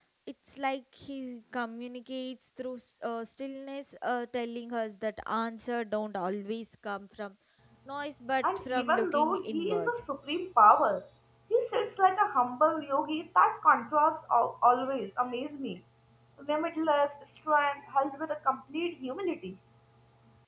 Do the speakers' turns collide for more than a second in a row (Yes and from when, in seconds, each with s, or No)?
Yes, from 8.4 s